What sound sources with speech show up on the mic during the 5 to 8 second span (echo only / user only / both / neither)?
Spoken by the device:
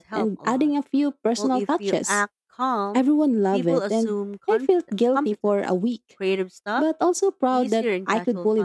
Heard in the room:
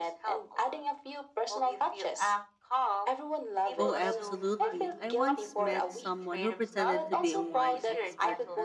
both